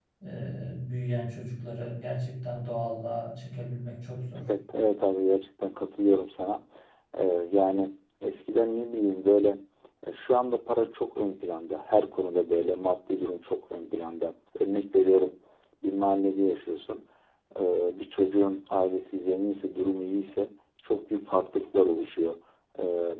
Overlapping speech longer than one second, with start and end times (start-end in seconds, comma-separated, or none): none